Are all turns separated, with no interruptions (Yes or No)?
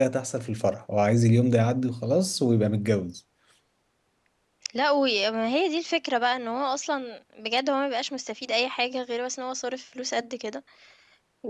Yes